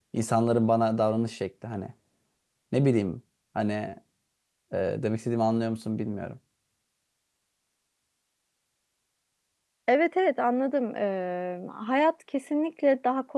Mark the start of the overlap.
none

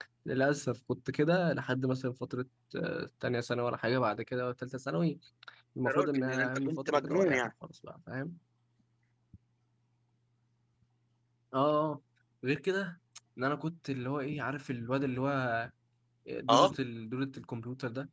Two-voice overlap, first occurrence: 6 s

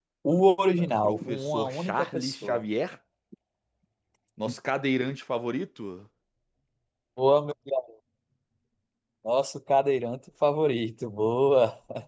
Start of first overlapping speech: 1 s

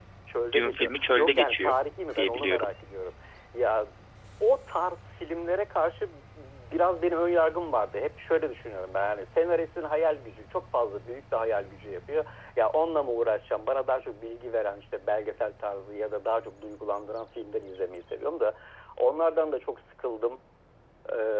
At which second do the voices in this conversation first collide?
1 s

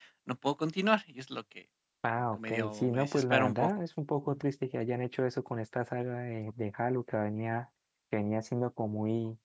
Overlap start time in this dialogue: 2 s

